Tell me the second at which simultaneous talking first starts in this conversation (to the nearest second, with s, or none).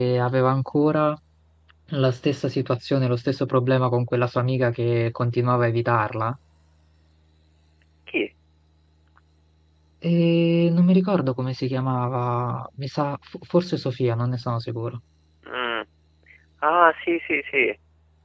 none